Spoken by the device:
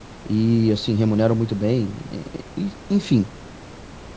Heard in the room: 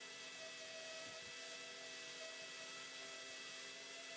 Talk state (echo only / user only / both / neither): neither